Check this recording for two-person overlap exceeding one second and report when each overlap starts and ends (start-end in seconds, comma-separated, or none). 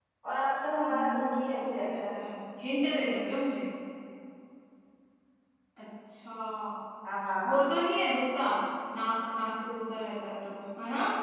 0.9-2.1